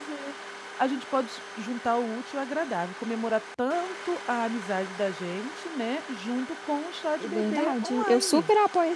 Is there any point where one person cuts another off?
Yes, from 7.2 s

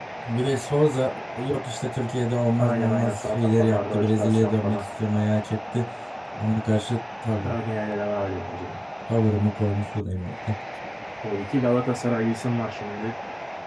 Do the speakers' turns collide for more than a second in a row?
Yes, from 2.6 s

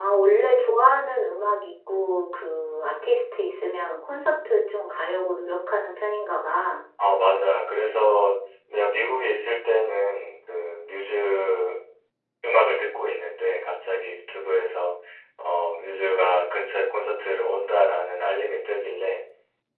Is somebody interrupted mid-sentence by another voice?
No

